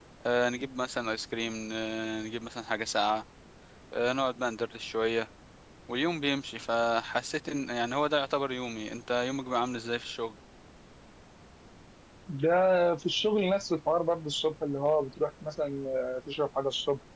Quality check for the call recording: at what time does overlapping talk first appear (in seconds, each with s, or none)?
none